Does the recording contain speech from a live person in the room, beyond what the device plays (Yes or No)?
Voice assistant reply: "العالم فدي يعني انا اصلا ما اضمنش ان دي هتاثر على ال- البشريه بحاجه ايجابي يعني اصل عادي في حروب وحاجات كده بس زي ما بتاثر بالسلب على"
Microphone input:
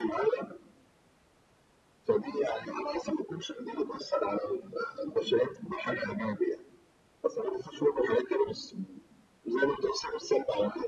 No